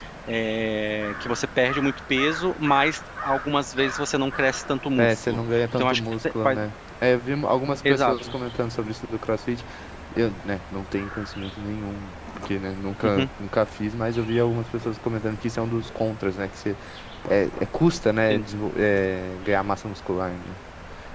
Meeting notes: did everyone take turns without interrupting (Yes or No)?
No